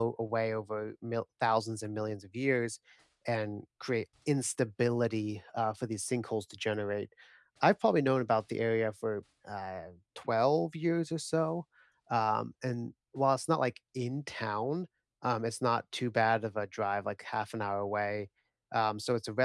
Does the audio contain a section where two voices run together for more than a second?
No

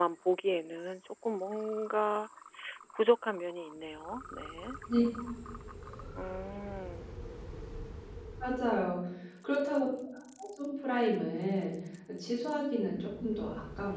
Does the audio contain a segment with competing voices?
No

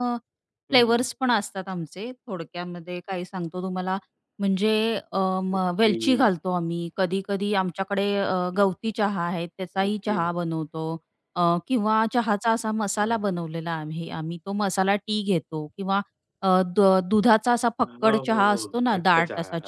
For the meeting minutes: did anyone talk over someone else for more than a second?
Yes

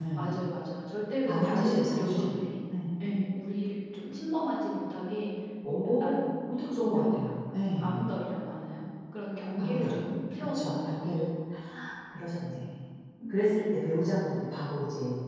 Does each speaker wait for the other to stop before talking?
No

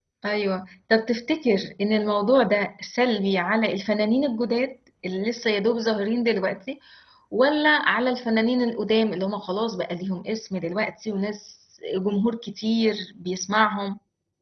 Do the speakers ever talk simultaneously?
No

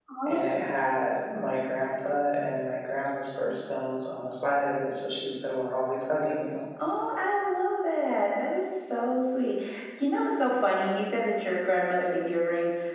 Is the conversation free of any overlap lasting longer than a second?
Yes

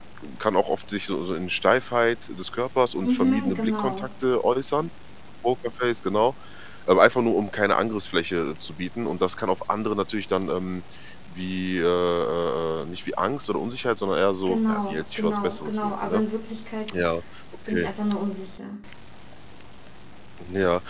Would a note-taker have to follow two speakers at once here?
Yes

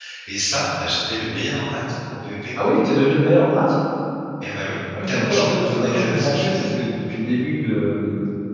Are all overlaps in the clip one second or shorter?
No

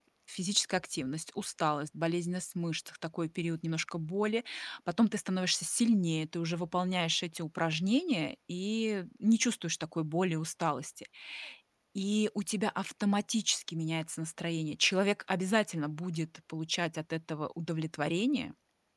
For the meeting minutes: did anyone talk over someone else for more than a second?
No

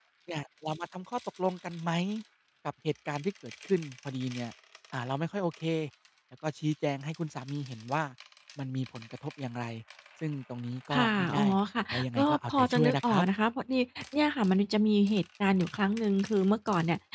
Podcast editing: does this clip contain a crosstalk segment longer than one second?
Yes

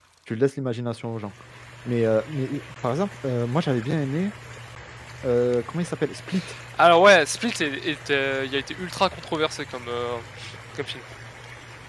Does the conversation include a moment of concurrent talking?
No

